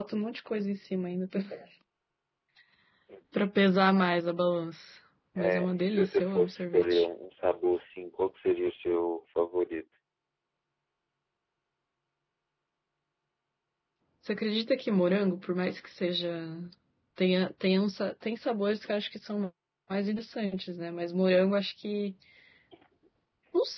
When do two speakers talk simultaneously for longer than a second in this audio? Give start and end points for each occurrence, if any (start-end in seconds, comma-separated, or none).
5.4-7.1